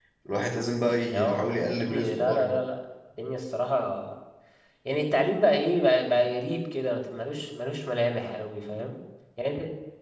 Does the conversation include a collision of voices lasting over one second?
Yes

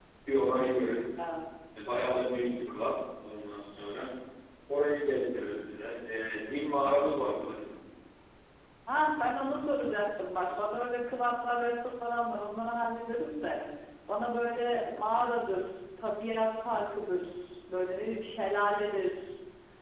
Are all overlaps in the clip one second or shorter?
Yes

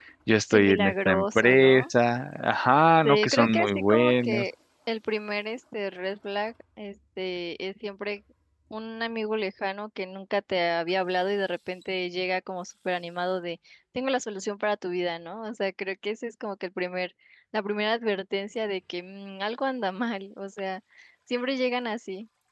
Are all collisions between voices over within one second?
No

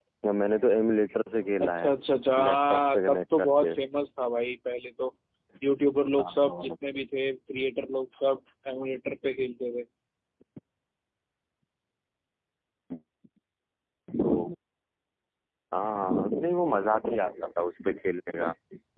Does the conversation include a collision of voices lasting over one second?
Yes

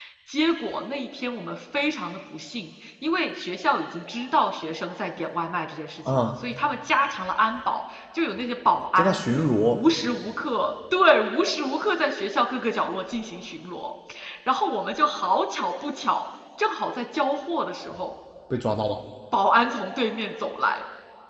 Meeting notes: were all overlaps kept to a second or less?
Yes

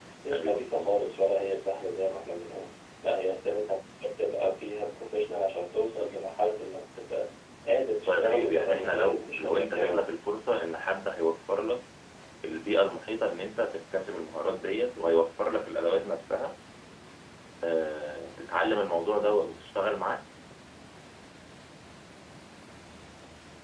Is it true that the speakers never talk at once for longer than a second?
No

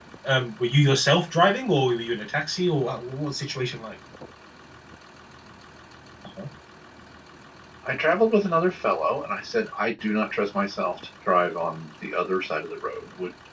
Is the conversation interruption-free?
Yes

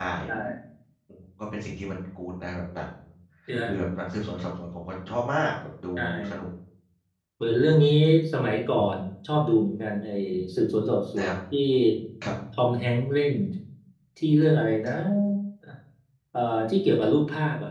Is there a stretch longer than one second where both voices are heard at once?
No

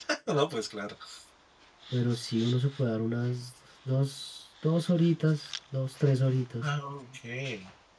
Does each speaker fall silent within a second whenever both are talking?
Yes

